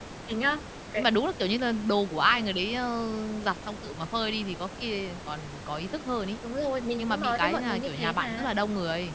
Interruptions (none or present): present